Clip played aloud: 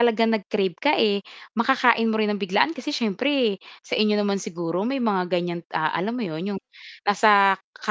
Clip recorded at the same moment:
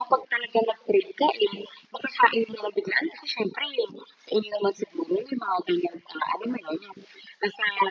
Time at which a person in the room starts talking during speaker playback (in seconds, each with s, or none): none